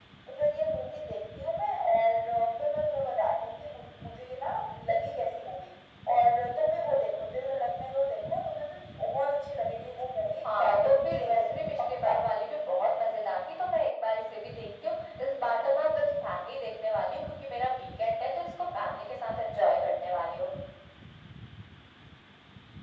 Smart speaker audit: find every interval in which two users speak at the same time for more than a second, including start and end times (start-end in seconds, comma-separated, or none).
10.4-12.1